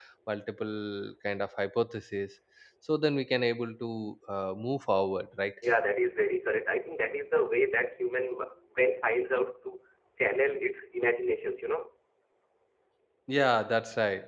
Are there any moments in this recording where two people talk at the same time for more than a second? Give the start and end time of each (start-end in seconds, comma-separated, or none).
none